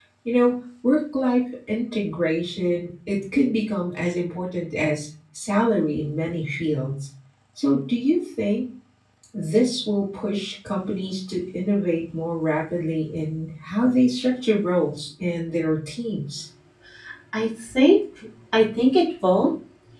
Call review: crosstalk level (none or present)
none